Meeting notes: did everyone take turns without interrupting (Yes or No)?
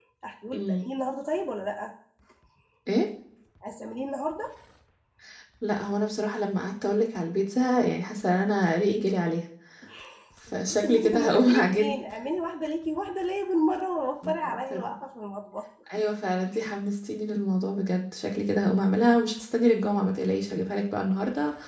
No